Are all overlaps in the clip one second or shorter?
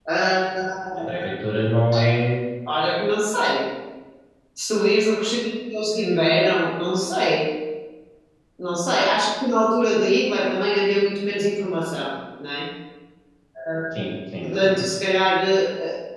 Yes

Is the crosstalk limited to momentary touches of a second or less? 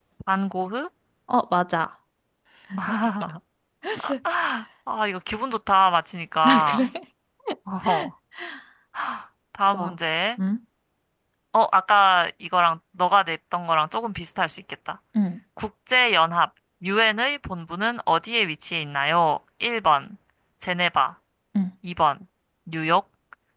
Yes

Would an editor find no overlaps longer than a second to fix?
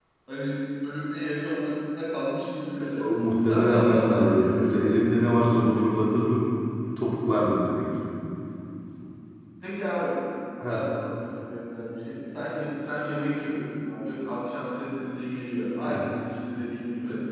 No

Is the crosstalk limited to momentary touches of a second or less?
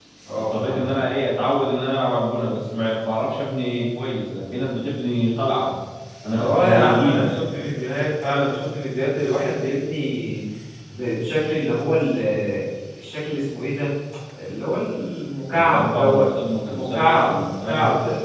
No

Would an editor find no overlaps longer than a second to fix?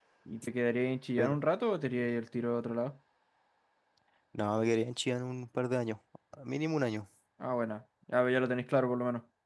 Yes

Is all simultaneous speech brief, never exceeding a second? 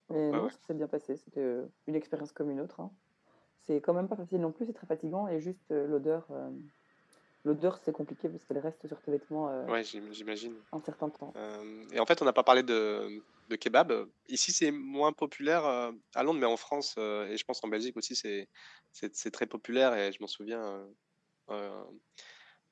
Yes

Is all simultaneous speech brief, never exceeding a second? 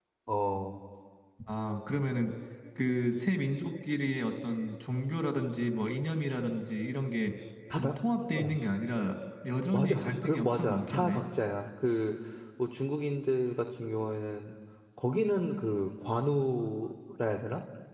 No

